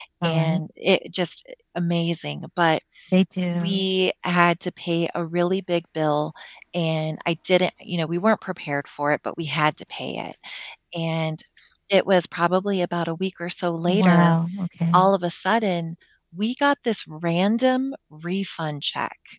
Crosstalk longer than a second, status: none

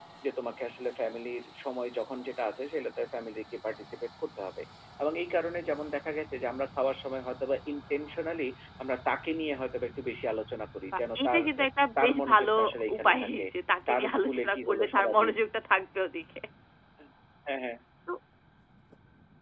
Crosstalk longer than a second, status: present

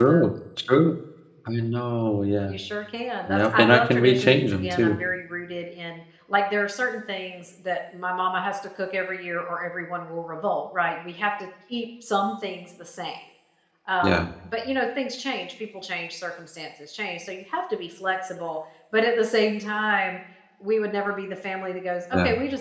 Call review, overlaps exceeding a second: present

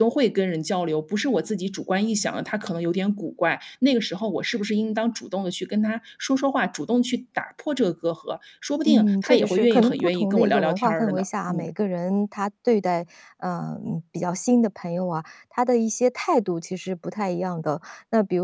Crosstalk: present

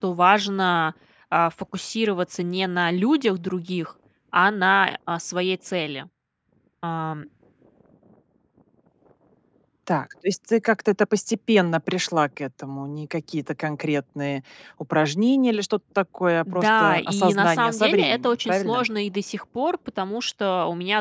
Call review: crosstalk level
present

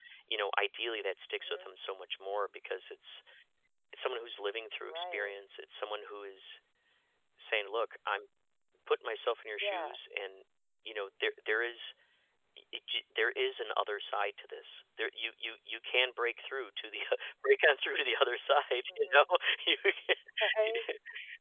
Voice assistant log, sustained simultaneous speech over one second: none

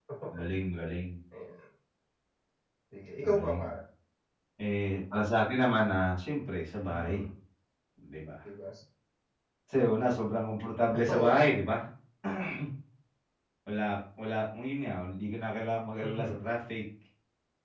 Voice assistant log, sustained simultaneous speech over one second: none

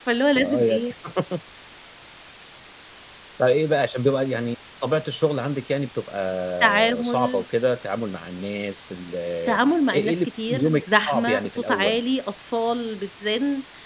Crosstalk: present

